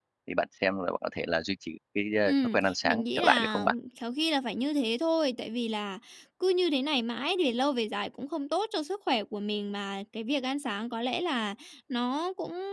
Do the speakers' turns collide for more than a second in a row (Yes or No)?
Yes